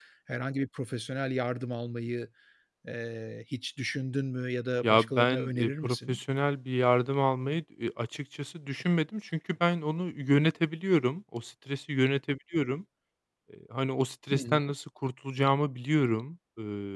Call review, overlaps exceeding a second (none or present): present